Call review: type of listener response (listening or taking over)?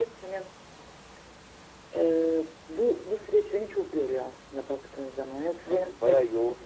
taking over